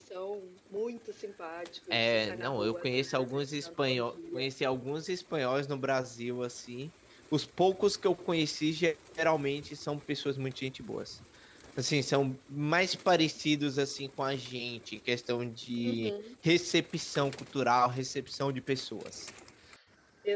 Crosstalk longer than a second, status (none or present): present